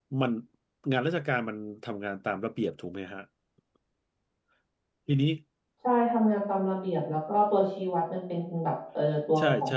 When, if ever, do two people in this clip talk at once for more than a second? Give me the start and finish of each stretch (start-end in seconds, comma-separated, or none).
none